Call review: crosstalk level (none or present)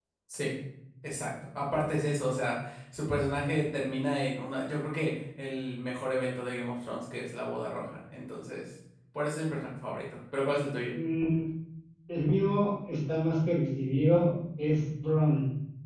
none